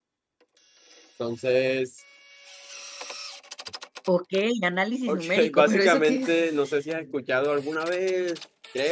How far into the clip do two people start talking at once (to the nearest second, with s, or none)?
5 s